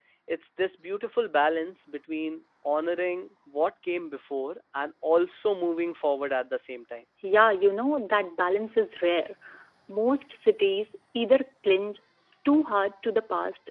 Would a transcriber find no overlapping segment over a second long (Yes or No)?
Yes